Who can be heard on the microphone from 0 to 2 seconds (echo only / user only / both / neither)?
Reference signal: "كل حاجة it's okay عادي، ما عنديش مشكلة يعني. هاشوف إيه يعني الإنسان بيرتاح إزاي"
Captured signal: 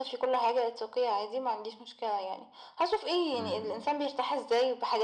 echo only